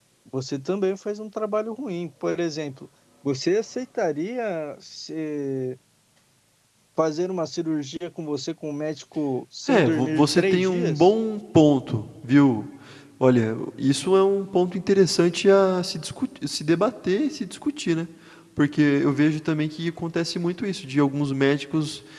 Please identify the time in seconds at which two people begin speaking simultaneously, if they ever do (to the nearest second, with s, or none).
10 s